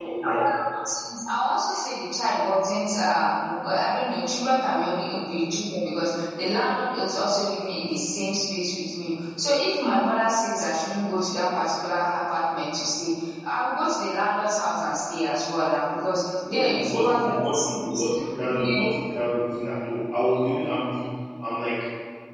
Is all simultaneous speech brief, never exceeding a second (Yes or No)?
No